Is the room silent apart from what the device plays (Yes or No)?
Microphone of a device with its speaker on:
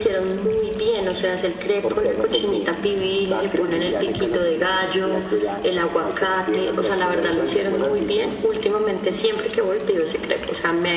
Yes